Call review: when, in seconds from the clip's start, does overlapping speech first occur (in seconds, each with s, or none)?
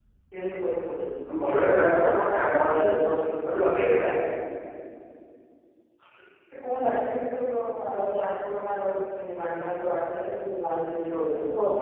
none